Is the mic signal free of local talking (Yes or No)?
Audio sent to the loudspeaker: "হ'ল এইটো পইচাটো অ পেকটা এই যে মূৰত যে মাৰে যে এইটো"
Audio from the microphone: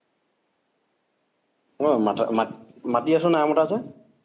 No